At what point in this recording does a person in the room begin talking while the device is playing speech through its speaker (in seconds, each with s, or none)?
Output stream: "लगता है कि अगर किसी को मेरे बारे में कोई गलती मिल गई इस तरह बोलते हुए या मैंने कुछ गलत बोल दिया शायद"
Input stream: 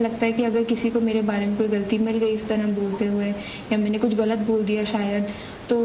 none